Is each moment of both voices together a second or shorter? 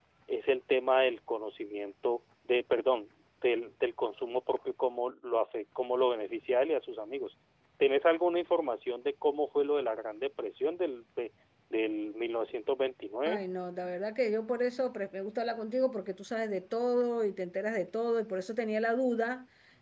Yes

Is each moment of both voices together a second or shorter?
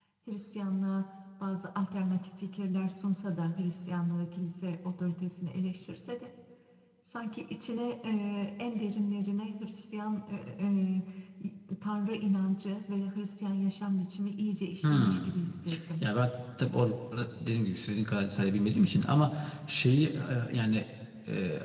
Yes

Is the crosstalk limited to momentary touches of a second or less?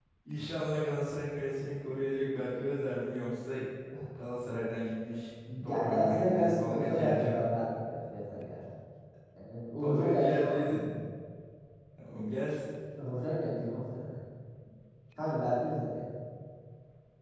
No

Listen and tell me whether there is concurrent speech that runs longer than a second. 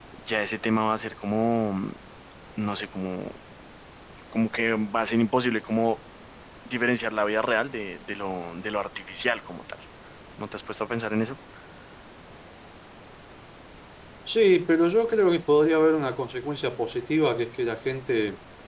No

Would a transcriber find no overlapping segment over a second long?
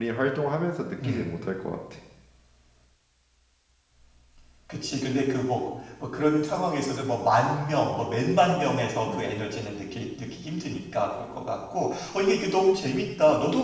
Yes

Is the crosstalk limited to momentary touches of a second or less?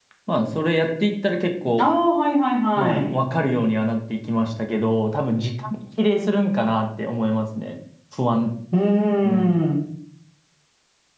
Yes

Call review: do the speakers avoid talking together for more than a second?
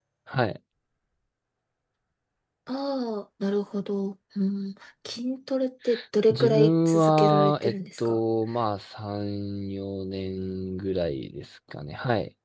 No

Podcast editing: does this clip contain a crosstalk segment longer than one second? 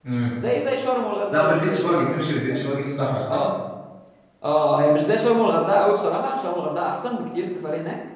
Yes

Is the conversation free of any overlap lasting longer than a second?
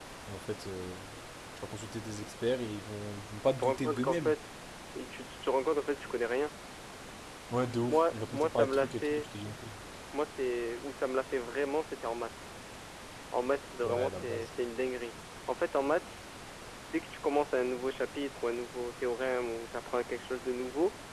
No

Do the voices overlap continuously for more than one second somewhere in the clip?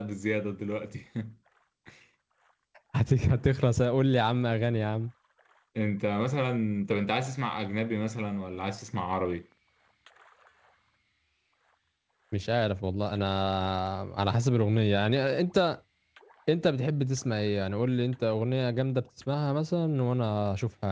No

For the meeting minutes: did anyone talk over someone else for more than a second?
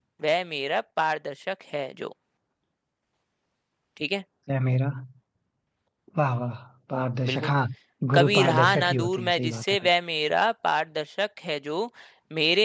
Yes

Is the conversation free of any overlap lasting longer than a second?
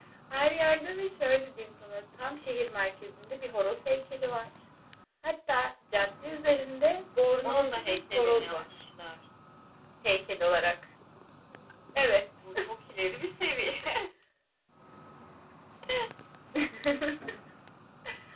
No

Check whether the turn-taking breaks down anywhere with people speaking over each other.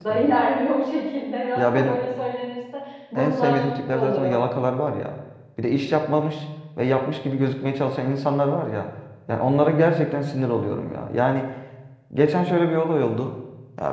Yes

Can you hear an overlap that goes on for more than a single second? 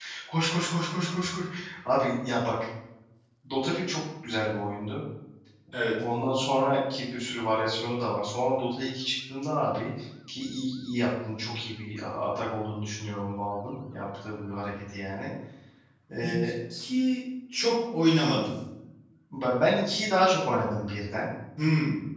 No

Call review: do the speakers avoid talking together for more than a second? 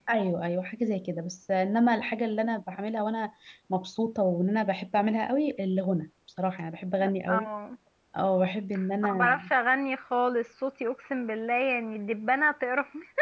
Yes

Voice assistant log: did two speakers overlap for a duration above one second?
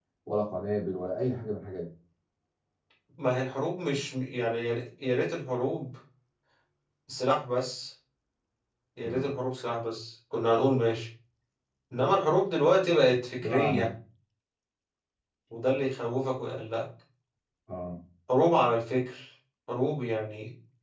No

